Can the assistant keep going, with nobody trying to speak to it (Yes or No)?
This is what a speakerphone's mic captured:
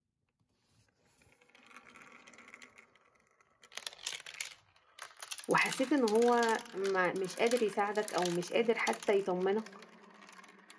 No